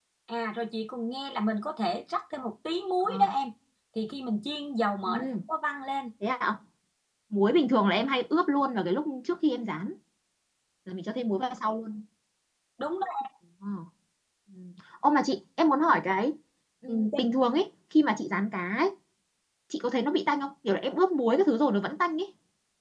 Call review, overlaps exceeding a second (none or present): none